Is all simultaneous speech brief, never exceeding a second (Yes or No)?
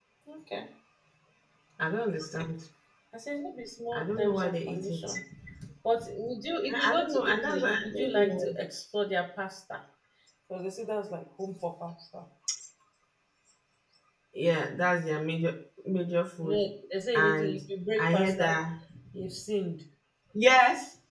No